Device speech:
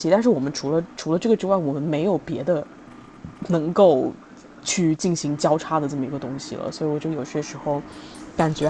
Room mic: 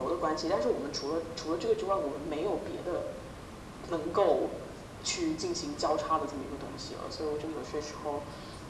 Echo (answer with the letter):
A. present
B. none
A